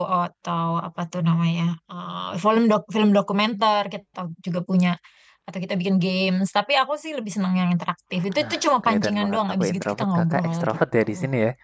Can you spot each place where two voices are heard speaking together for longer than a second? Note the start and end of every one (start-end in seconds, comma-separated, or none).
8.4-11.1